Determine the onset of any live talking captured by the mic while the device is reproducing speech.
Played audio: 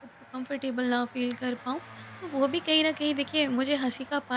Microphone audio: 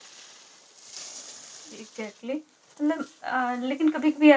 1.7 s

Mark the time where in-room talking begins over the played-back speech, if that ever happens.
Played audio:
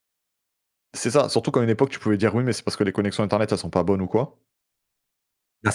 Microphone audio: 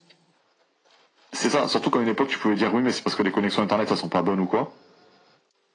none

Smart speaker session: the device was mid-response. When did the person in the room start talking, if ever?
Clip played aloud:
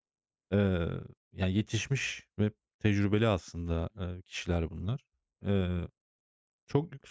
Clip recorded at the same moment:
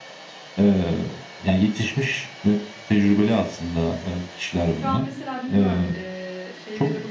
4.7 s

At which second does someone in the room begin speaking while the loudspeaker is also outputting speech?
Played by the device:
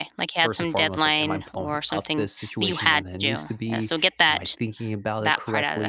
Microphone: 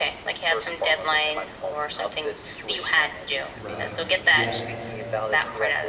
3.5 s

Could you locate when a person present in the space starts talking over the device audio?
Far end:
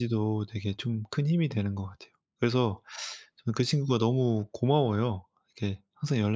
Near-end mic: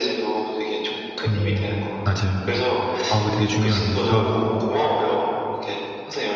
1.2 s

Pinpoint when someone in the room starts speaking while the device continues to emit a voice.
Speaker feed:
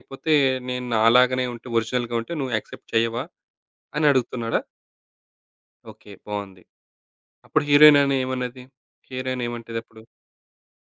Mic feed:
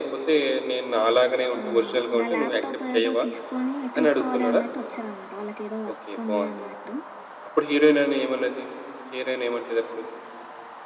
1.6 s

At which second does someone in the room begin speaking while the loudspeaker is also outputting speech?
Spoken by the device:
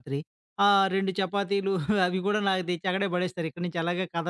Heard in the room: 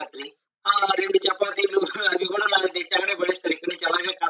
none

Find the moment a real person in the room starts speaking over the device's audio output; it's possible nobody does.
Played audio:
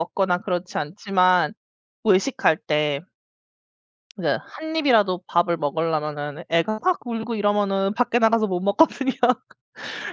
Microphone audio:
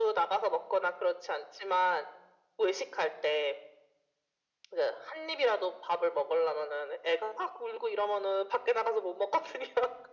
none

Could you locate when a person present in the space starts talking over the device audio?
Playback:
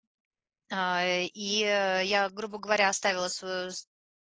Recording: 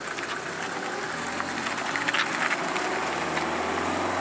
none

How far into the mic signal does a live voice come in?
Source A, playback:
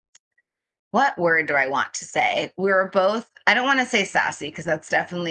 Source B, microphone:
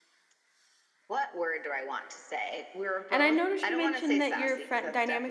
3.1 s

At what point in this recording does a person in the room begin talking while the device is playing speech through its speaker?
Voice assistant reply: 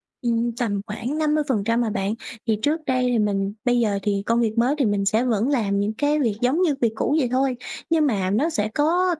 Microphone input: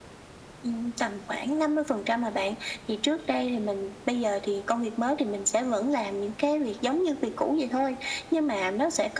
none

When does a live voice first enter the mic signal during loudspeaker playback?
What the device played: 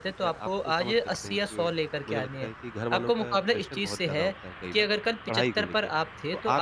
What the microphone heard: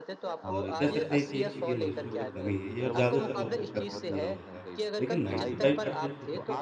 0.4 s

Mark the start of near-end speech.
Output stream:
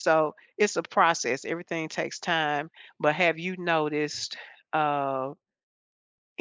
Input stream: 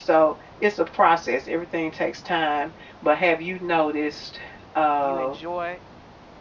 5.0 s

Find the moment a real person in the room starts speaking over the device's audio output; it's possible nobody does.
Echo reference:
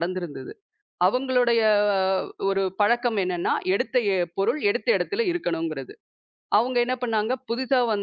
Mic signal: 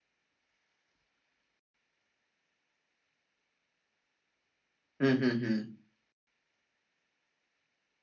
5.1 s

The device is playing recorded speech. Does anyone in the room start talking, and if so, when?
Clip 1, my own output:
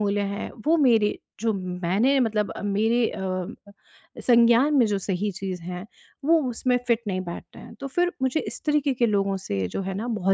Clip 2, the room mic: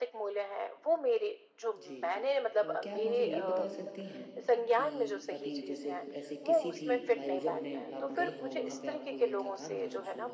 1.8 s

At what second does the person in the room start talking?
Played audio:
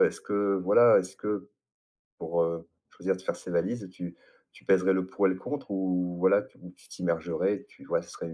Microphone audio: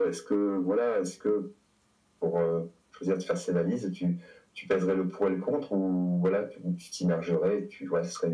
none

